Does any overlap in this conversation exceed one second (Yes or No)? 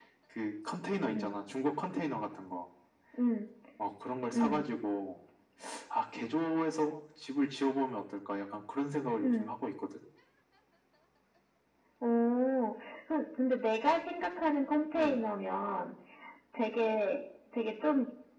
No